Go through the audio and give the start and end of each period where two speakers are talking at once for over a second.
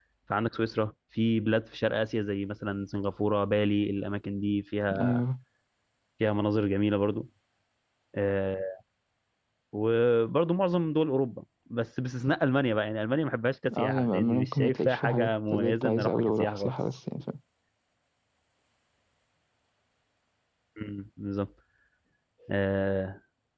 13.8-17.0

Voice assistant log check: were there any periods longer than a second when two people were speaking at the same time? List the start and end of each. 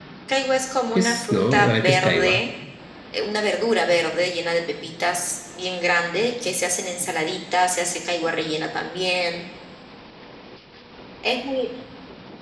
0.9-2.4

